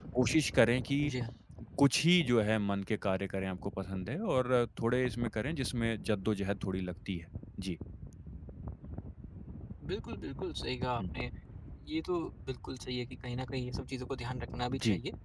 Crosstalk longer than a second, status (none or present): none